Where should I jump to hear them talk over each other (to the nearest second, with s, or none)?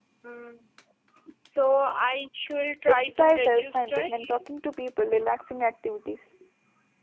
3 s